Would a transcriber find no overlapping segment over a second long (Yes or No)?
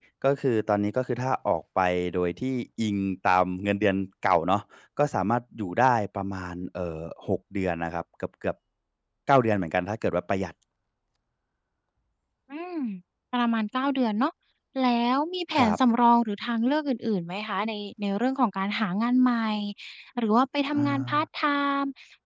Yes